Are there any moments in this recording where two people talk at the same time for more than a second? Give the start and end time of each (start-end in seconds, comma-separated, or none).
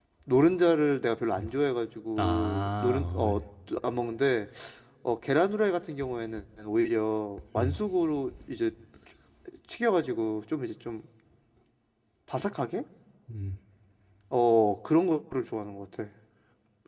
2.2-3.4